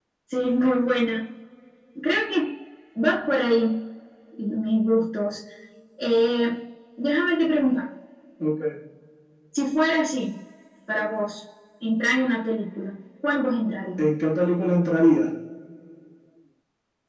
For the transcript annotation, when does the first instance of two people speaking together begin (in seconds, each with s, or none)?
none